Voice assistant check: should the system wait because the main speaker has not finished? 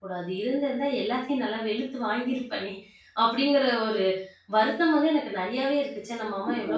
No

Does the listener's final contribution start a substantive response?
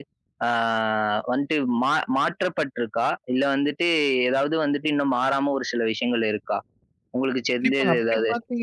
Yes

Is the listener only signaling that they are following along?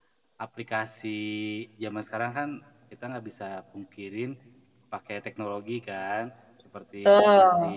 Yes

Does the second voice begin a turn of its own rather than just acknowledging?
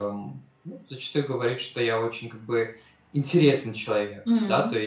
No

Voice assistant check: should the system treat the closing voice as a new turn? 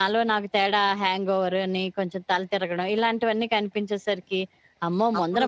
No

